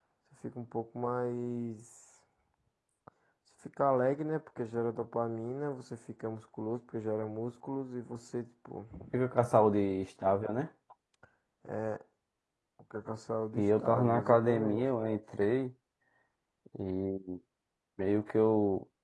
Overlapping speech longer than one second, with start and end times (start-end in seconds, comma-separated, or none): 13.6-14.8